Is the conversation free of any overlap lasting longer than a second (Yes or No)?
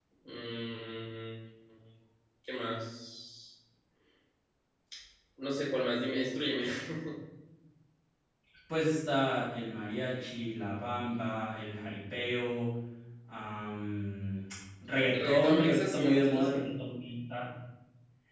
No